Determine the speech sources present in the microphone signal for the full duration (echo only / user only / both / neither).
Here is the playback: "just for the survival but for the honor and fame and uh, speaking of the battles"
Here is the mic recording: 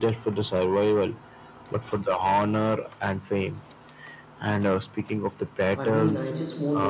both